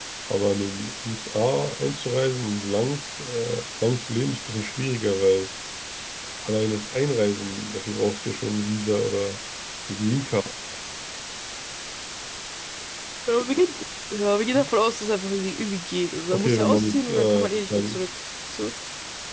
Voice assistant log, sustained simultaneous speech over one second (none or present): present